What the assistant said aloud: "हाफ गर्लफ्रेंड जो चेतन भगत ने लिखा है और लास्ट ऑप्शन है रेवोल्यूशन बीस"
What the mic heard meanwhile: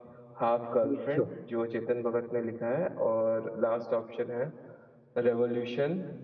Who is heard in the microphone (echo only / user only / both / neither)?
both